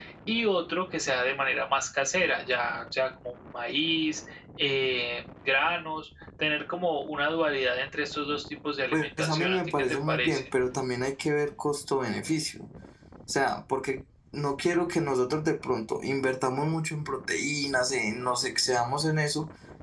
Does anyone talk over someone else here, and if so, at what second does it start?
9 s

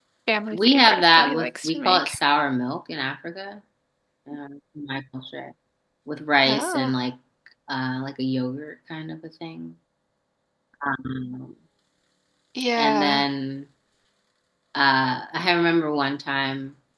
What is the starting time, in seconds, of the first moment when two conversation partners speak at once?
1 s

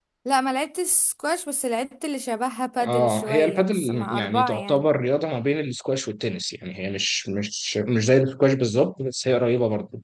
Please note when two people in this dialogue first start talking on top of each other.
3 s

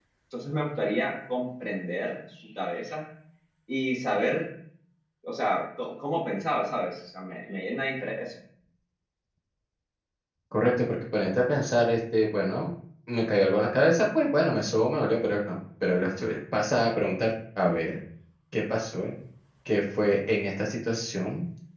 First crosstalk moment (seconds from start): none

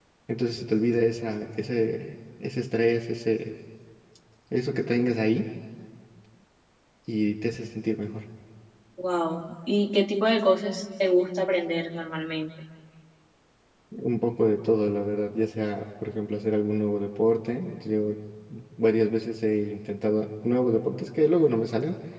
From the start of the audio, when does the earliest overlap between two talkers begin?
none

